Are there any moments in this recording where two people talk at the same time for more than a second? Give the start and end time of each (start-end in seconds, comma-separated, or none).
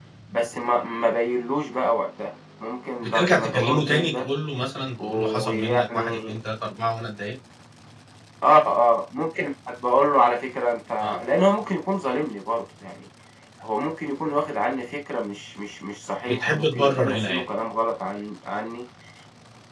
3.0-4.2, 5.0-6.4, 16.3-17.5